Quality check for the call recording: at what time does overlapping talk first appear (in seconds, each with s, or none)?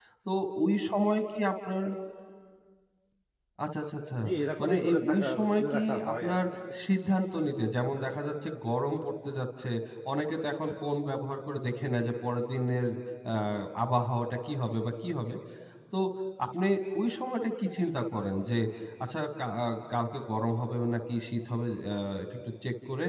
4.6 s